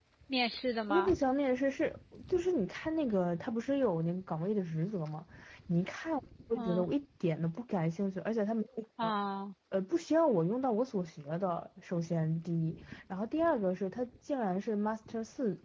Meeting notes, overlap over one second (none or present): none